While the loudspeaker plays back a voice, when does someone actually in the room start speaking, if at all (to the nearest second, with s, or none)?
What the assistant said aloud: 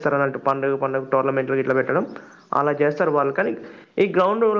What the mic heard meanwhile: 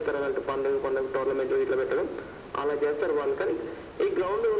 none